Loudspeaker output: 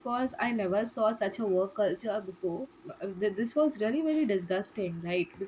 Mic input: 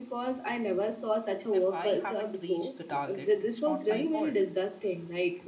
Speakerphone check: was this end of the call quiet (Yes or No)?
No